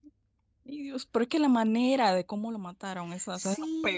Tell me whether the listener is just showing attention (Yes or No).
No